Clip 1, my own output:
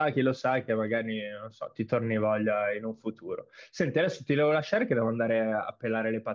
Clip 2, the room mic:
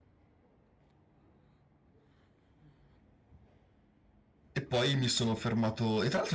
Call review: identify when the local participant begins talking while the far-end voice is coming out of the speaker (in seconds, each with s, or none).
4.5 s